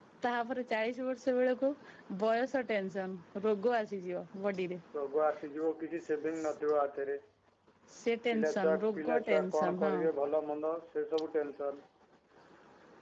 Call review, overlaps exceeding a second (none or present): present